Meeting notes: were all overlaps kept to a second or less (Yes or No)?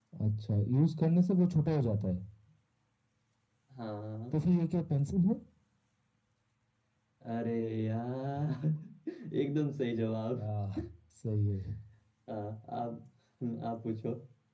Yes